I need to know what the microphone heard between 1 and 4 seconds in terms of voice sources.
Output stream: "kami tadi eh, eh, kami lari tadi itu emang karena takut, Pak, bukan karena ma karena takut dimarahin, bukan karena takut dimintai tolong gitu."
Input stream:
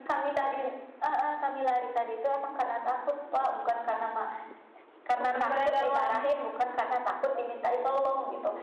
echo only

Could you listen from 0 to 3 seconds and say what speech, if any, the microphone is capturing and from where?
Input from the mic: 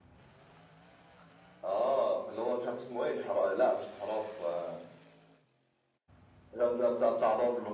echo only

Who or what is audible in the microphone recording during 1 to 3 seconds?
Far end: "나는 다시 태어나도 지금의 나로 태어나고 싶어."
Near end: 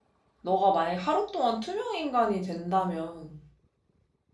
user only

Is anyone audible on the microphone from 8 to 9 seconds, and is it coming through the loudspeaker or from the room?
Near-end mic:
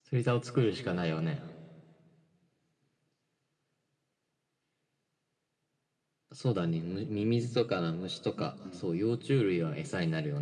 both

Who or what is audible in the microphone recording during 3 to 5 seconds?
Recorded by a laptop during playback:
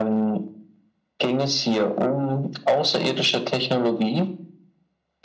echo only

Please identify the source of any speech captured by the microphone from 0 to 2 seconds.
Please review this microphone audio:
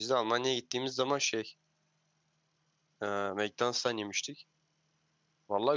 user only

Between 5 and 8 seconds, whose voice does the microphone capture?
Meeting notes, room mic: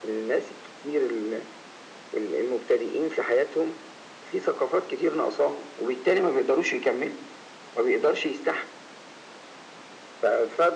echo only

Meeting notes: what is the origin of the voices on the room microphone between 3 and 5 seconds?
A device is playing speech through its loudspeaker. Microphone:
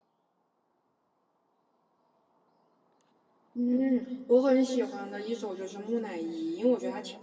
user only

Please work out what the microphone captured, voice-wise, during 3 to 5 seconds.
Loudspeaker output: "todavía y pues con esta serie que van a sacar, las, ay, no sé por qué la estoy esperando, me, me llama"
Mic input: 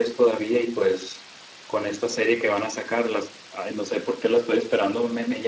echo only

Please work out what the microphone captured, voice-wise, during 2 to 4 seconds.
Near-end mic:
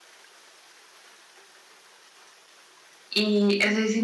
user only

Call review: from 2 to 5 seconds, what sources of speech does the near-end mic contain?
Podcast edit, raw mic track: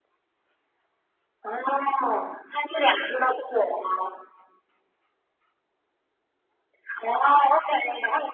echo only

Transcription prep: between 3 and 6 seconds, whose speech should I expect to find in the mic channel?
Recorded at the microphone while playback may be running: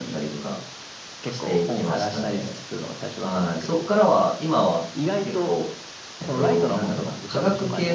both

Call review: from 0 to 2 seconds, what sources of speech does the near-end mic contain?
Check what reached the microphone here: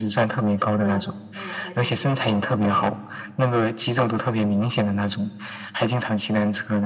both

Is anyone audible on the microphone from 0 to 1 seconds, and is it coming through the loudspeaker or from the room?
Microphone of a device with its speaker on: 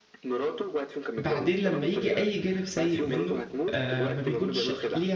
echo only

